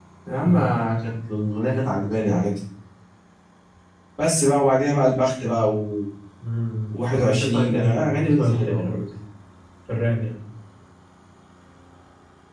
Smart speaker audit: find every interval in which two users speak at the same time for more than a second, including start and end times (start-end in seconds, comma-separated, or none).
7.1-9.0